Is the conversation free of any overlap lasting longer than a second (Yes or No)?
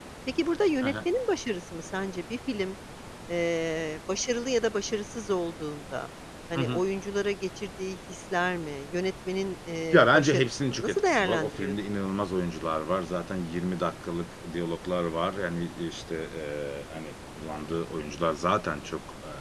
No